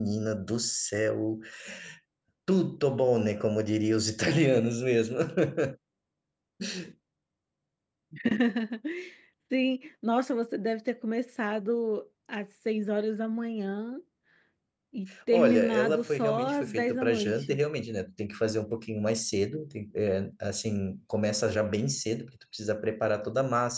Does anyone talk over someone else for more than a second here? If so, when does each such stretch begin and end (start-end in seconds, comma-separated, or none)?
15.3-17.6